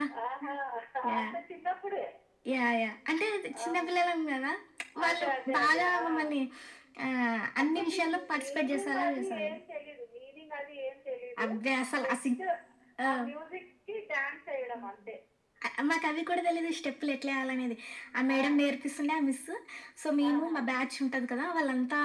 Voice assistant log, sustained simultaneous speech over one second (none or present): present